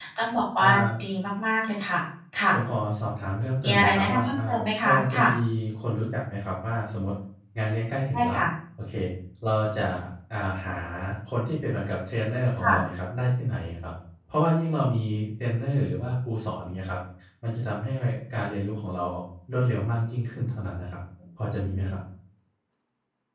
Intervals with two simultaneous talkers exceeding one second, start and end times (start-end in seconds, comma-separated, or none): 3.6-5.3